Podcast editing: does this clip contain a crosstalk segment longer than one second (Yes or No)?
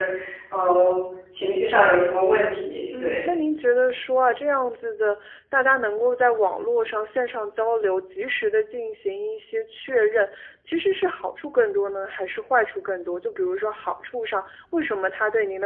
No